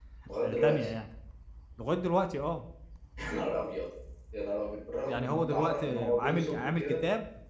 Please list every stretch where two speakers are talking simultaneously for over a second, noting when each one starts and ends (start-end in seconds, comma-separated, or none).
5.1-6.8